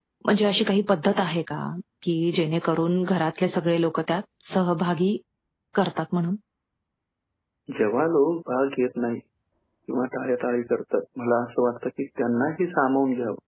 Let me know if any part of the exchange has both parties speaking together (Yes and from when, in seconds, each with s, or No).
No